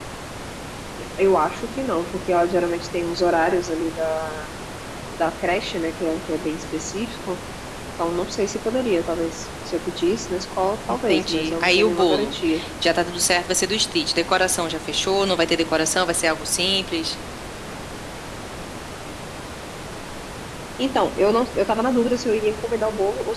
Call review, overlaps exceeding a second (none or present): present